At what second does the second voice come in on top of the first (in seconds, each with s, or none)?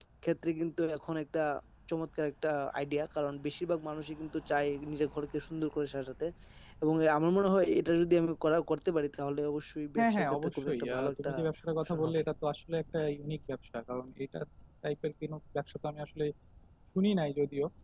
10.0 s